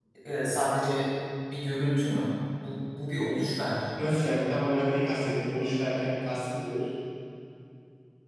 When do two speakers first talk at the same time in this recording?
none

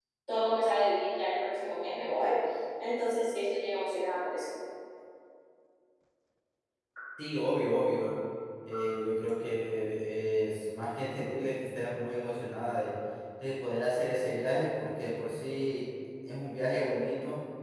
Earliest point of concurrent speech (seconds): none

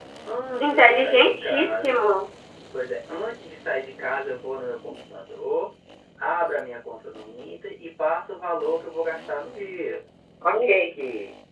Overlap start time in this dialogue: 1 s

